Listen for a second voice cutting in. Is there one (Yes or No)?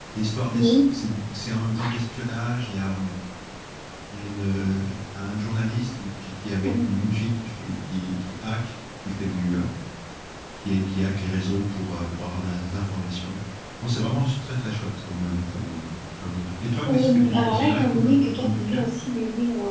Yes